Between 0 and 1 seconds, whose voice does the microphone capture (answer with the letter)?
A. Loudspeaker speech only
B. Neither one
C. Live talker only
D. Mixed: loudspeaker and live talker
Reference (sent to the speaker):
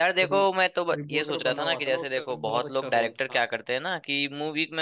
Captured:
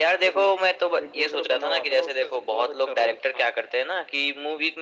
A